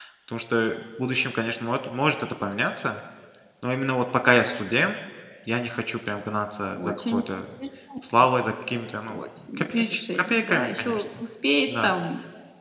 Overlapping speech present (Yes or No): Yes